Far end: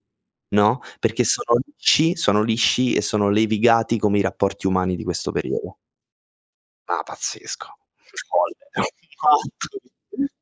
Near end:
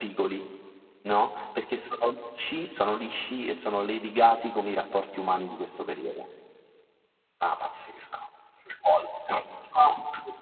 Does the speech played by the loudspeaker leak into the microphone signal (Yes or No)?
Yes